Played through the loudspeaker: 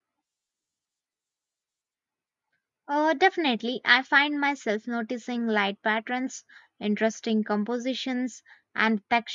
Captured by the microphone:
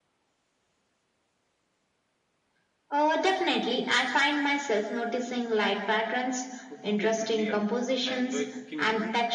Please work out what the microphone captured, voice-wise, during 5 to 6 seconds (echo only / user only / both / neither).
echo only